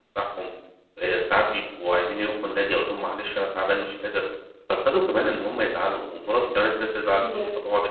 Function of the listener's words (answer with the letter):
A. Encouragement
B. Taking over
A